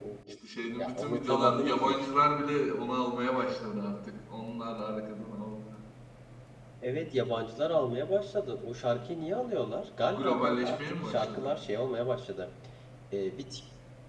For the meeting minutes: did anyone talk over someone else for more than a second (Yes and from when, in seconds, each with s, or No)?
Yes, from 0.8 s